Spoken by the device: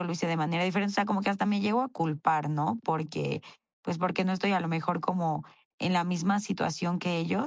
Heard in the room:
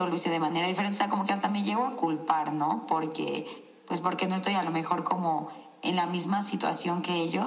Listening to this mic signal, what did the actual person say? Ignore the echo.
none

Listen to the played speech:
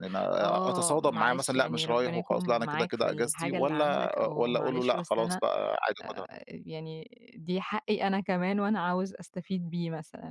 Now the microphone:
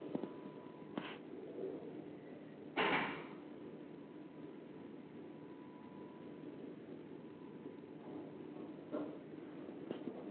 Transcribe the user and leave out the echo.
none

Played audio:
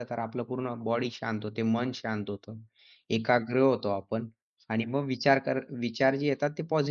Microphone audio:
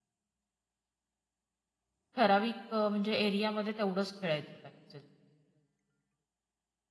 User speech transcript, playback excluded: ठराविक अ, म्हणजे एरियामध्ये तेवढंच खेळायचं काय असेल?

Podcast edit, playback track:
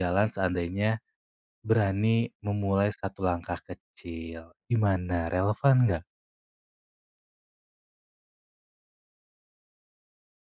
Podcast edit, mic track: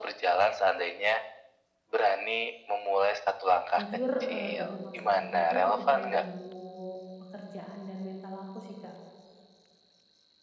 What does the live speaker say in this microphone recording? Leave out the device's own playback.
jujur, eee, dengan masalah ini tuh cukup mengganggu pekerjaan dan mental aku sih, Kak.

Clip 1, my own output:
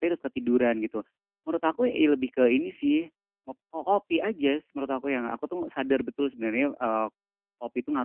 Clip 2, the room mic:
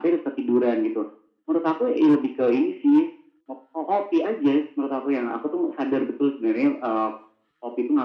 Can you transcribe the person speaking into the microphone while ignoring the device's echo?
none

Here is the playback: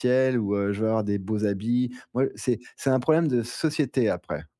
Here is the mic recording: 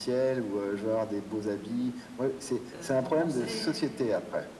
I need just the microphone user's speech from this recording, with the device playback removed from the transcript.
heu, ton conseil

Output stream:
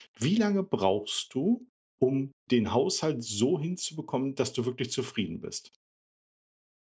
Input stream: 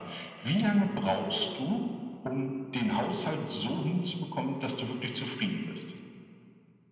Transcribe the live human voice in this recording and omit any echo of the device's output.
Mhm,

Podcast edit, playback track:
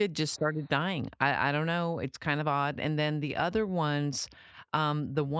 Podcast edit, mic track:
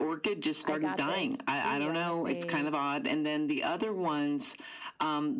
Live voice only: I got this, ooh, I wanna say

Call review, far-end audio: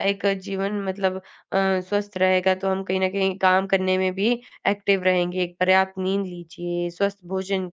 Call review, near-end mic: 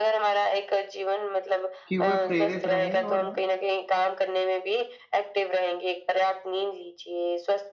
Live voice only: कि वह प्रेरित रहें और

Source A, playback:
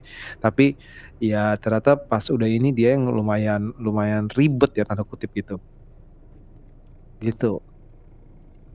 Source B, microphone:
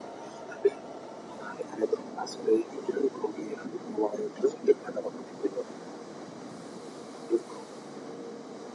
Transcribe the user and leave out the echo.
none

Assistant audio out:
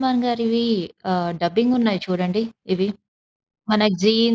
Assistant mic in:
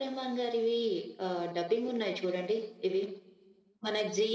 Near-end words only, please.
none

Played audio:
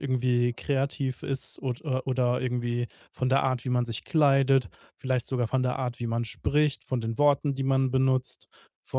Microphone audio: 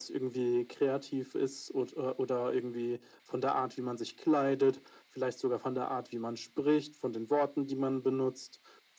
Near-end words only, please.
none

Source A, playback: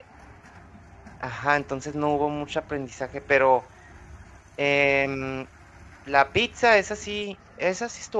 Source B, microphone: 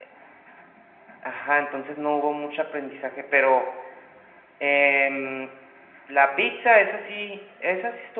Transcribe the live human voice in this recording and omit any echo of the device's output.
none

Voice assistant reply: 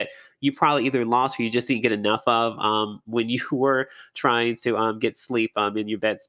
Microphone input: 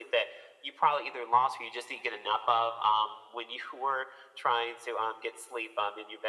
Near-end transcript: none

